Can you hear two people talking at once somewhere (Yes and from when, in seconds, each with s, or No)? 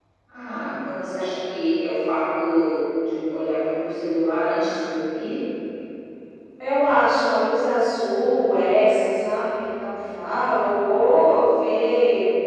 No